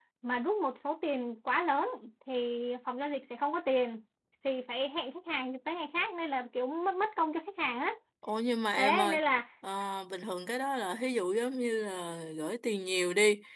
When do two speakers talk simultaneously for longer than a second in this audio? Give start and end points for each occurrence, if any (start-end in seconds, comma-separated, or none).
none